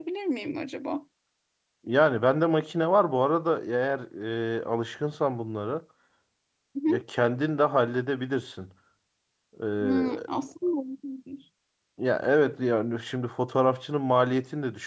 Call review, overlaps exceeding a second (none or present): none